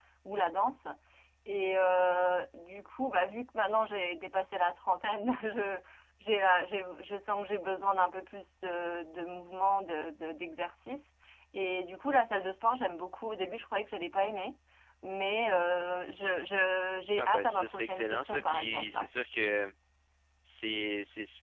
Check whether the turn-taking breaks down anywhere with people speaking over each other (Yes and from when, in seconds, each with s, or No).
Yes, from 17.2 s